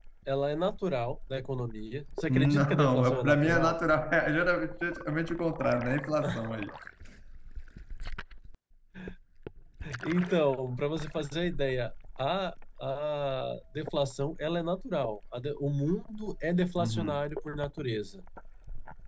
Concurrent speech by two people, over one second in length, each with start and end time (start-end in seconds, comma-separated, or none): 2.3-3.8